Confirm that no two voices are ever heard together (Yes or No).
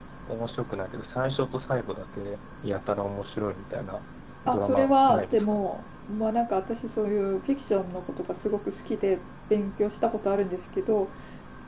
No